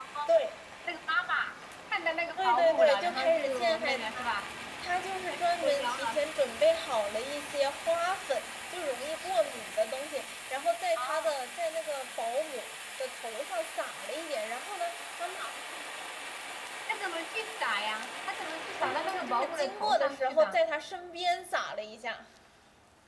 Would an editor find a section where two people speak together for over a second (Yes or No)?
Yes